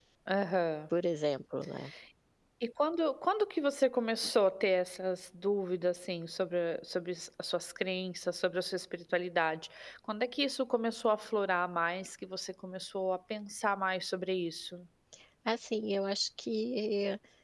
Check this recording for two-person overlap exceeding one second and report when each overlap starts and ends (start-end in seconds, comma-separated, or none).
none